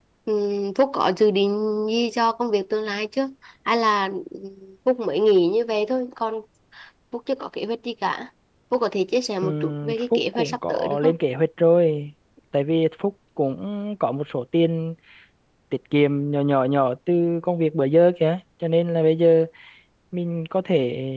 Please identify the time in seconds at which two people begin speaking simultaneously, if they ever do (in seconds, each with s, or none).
9.4 s